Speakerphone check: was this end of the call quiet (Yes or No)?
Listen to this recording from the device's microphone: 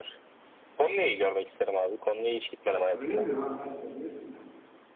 No